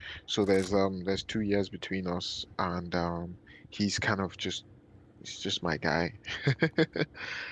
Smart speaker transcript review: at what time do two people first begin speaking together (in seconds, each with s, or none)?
none